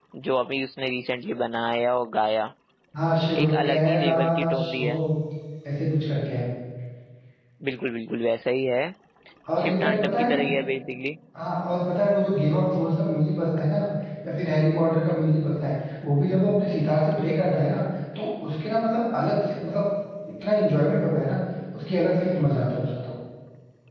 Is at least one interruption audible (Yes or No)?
Yes